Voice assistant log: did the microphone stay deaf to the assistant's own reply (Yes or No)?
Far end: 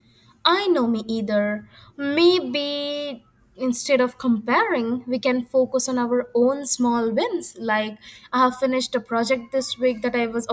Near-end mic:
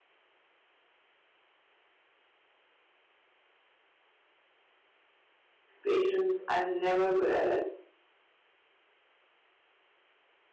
Yes